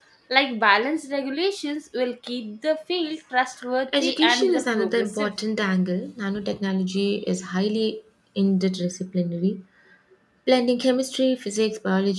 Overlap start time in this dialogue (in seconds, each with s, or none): 3.9 s